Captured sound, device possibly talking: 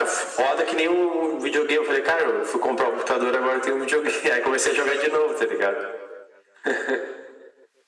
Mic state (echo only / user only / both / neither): echo only